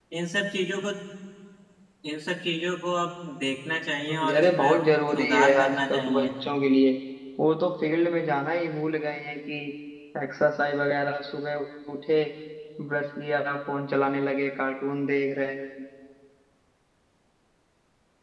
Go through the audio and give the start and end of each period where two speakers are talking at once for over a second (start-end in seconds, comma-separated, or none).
4.1-6.3